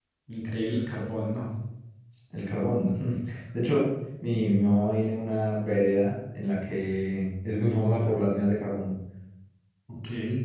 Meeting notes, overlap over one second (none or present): none